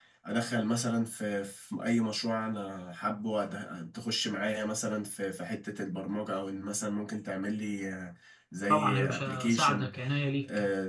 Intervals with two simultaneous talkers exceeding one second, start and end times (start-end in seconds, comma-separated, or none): 8.7-9.9